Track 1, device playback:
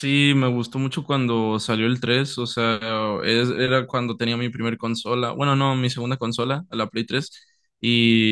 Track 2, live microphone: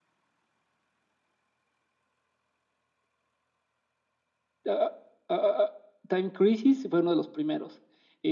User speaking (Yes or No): Yes